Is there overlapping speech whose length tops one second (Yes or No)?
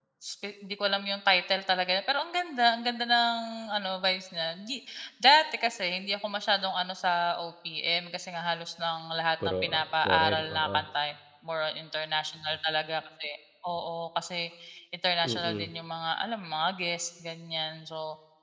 Yes